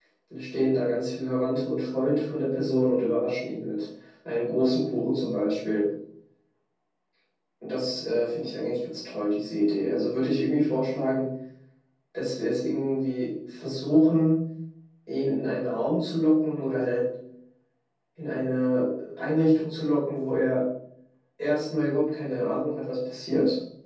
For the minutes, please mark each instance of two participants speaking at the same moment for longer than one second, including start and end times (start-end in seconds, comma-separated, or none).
none